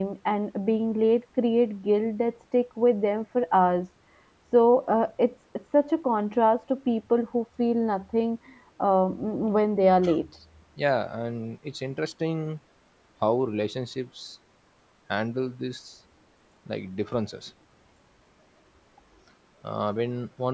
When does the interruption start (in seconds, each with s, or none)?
none